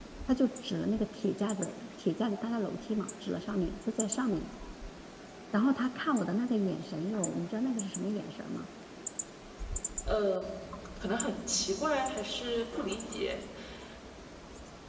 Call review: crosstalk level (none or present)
none